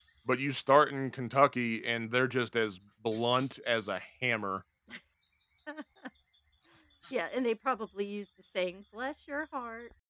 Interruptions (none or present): none